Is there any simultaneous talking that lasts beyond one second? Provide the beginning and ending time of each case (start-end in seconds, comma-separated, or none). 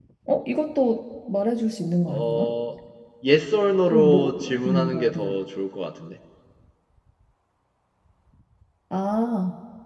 3.9-5.4